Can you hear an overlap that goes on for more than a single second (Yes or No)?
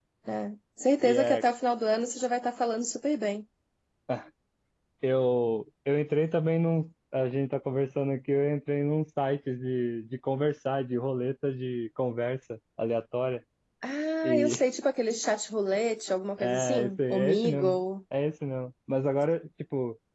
Yes